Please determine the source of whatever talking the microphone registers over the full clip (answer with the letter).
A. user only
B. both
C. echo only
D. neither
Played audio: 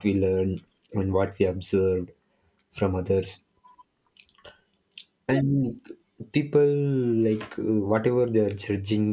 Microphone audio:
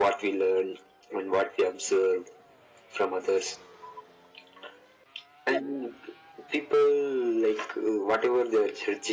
C